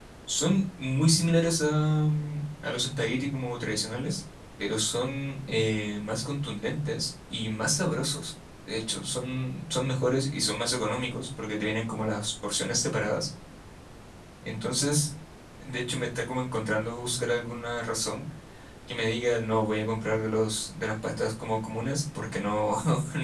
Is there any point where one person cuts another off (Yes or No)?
No